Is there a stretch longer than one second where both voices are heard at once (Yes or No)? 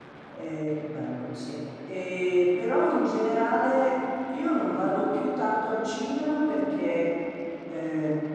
No